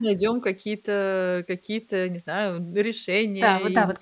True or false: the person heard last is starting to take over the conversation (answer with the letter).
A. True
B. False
A